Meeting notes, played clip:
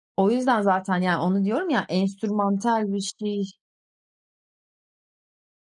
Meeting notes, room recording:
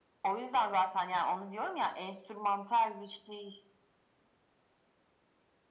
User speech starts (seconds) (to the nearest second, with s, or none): none